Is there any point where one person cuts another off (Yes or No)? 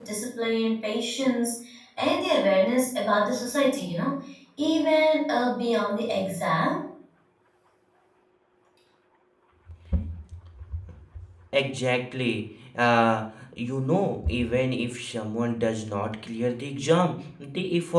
No